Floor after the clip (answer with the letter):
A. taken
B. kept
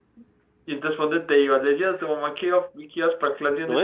A